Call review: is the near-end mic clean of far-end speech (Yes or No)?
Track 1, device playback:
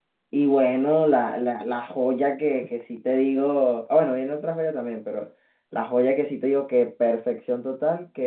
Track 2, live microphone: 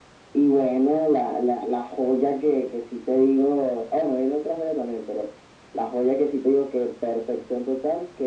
No